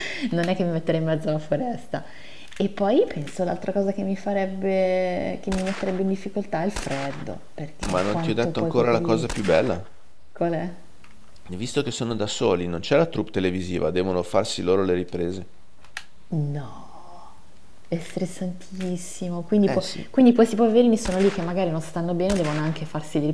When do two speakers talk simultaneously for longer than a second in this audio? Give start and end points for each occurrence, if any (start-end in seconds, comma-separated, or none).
7.9-9.3